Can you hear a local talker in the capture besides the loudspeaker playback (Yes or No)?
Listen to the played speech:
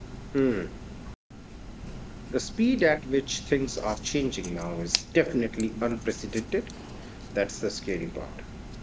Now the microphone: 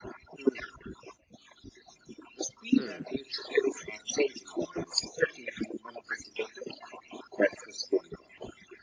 Yes